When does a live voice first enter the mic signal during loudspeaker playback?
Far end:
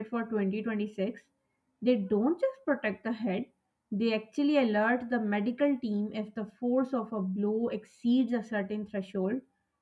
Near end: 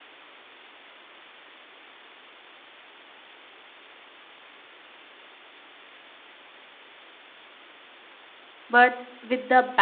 9 s

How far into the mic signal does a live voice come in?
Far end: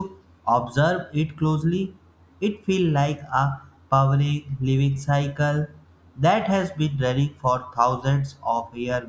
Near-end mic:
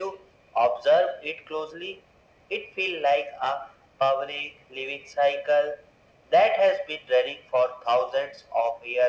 none

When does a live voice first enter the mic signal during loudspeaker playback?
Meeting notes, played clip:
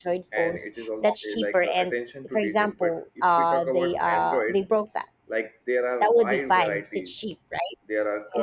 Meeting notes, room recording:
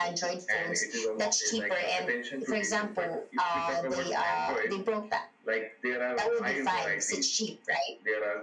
none

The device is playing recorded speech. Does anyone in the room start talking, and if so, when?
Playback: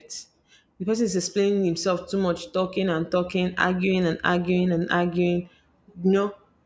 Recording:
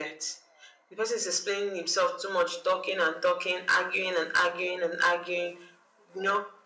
none

